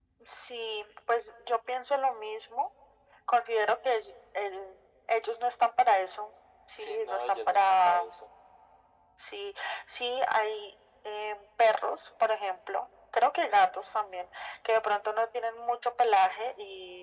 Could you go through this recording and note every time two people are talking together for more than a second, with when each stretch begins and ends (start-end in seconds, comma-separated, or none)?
6.8-8.0